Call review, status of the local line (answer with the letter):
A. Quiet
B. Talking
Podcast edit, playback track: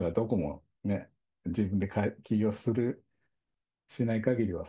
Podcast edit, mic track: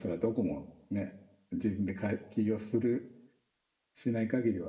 A